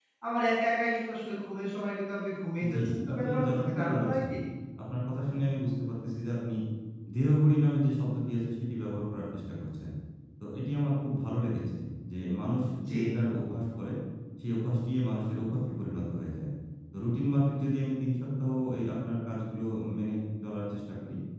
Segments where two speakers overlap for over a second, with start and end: 2.7-4.2

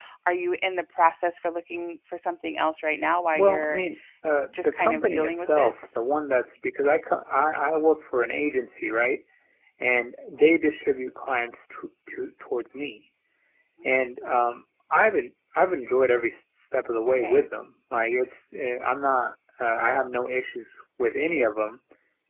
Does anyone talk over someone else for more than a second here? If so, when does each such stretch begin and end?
4.5-5.9

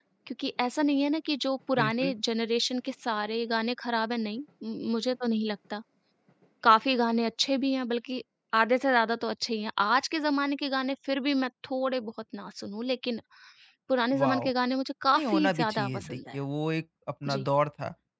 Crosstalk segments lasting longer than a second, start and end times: 15.1-16.4

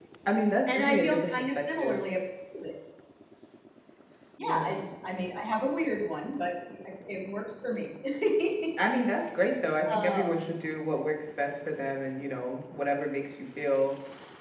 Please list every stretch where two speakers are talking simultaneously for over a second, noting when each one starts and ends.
0.7-2.0

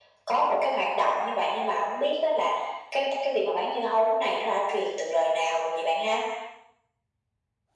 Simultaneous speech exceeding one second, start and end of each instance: none

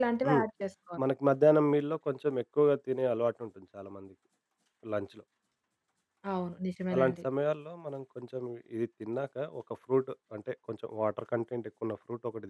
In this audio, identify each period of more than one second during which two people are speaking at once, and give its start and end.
none

